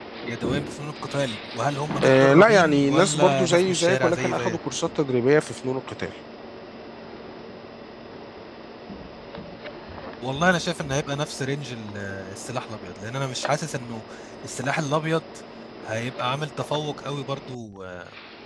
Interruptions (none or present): present